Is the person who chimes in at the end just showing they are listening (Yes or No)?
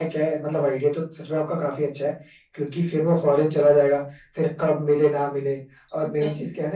Yes